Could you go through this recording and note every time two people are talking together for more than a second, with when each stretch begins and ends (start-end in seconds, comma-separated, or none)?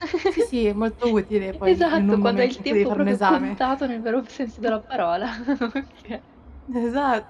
1.6-3.6